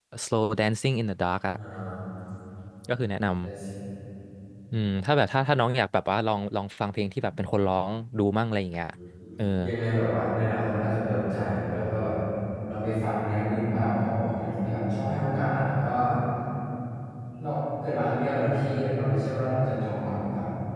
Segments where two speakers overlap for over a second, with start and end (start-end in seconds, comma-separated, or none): none